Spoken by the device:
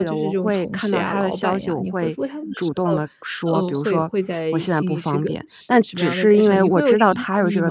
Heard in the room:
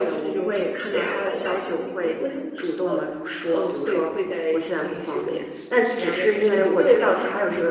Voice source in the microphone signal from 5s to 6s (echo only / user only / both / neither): echo only